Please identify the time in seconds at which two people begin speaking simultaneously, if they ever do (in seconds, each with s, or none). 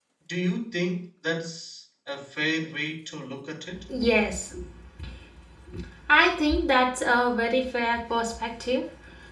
none